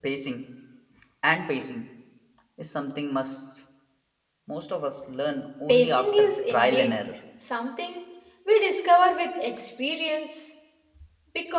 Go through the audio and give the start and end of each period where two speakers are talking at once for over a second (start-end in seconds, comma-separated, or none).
5.7-6.9